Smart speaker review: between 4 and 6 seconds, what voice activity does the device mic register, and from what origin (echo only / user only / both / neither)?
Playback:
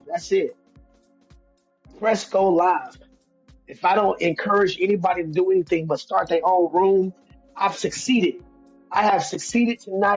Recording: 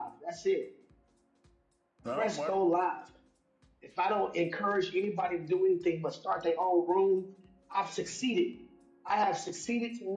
echo only